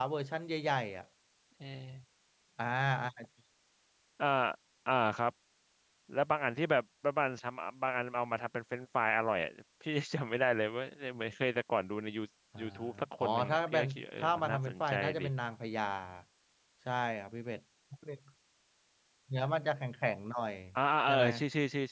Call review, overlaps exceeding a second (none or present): present